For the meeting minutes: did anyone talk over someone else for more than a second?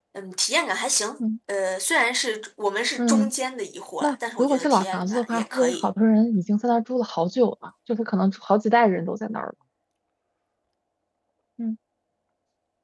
Yes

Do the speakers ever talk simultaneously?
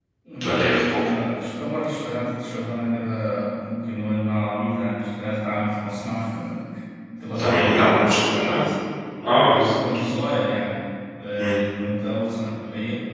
Yes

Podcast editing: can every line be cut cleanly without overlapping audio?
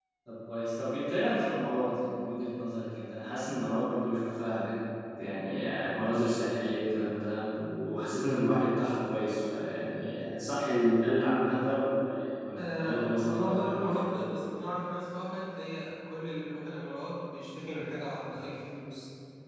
No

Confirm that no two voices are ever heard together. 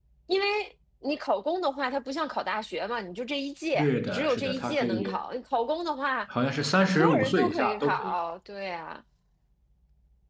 No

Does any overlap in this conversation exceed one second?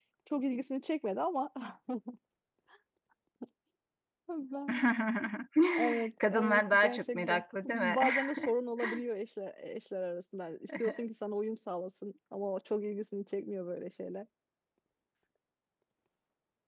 Yes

